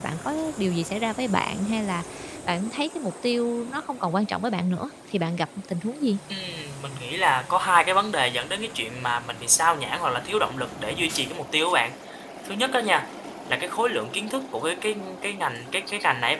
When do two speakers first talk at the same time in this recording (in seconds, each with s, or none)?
none